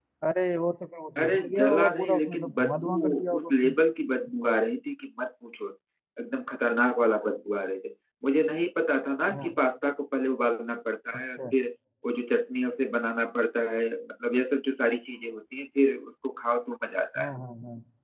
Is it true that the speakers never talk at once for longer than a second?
No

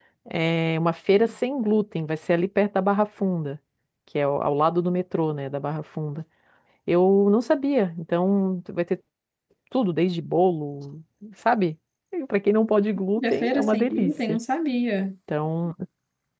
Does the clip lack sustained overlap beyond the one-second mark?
No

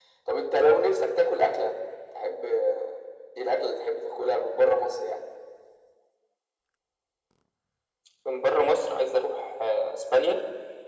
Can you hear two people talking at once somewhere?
No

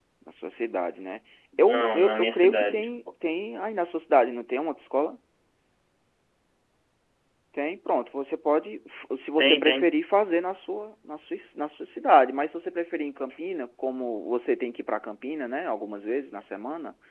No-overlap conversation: No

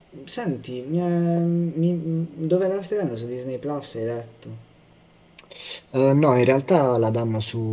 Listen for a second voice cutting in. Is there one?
No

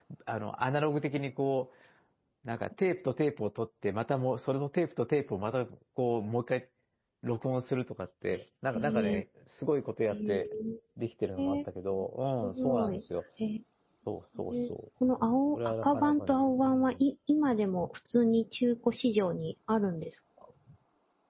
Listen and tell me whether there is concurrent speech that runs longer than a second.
Yes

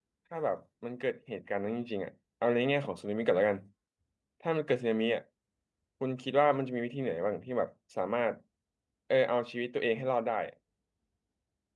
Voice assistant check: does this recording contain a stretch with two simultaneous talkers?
No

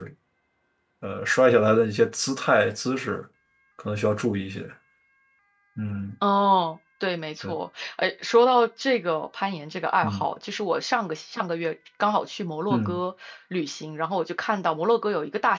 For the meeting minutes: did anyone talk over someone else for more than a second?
No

